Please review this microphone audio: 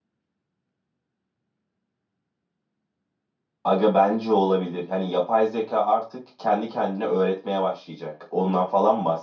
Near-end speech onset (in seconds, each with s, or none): 3.6 s